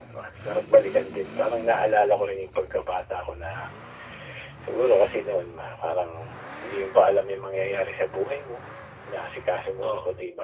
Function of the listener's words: listening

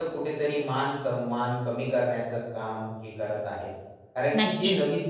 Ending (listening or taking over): listening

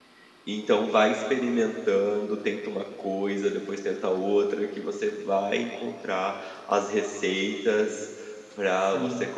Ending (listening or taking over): listening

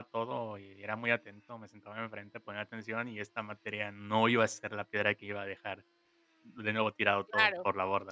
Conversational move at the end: taking over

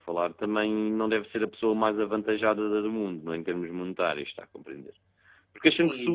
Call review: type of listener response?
taking over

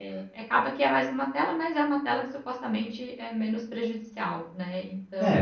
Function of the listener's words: taking over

